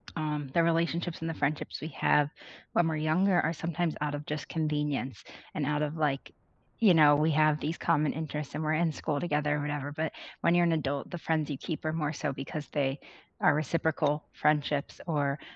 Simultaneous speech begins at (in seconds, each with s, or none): none